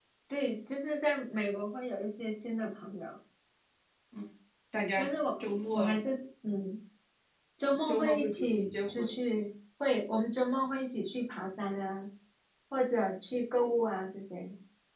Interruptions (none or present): present